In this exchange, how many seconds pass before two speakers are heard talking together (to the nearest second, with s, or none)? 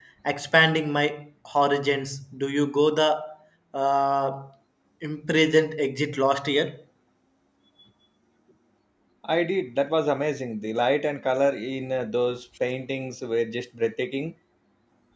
none